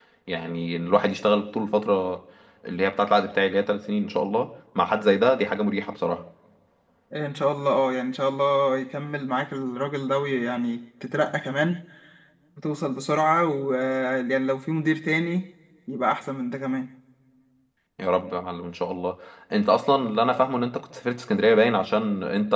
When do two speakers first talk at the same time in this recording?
none

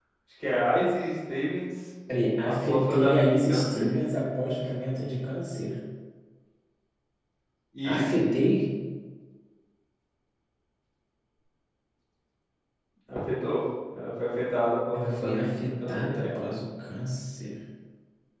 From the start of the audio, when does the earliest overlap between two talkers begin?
2.4 s

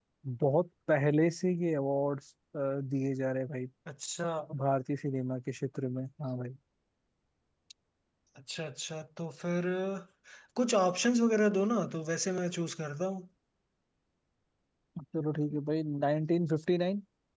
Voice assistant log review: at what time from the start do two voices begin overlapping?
none

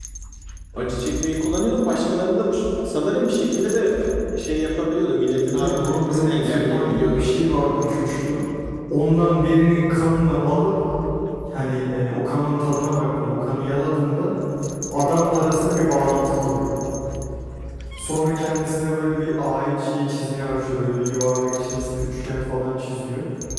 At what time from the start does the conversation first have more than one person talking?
5.5 s

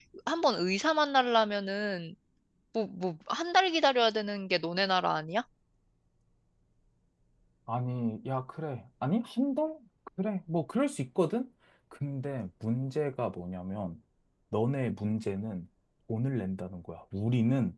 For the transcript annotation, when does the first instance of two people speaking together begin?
none

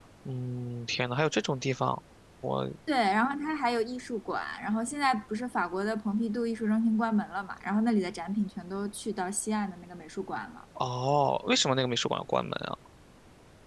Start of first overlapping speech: none

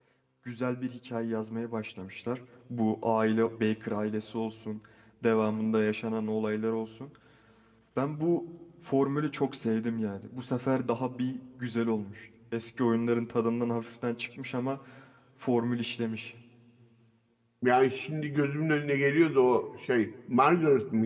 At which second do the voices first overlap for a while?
none

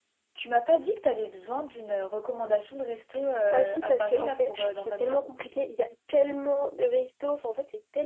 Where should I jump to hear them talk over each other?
3.5 s

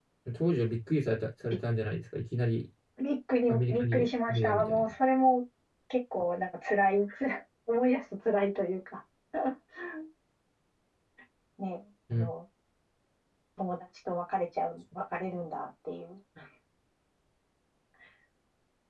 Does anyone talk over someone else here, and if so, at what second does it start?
3.5 s

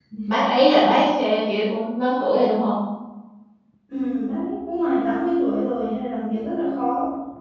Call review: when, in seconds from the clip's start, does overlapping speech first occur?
none

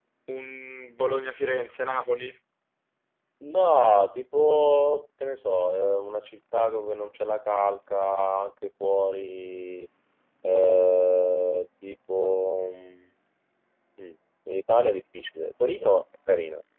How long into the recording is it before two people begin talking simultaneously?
none

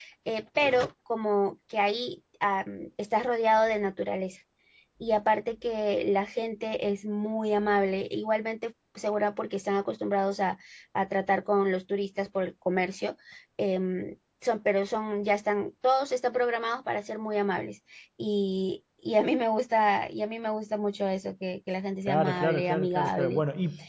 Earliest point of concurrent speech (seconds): 22.1 s

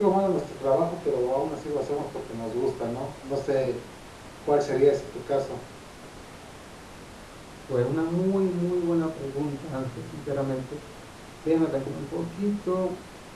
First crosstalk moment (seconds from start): none

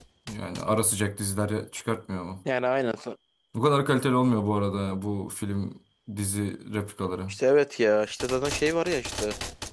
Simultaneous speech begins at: none

